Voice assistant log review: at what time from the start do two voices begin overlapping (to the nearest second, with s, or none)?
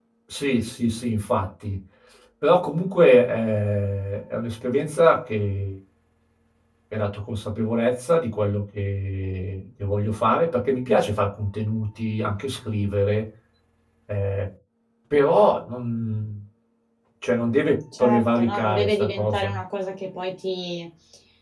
18 s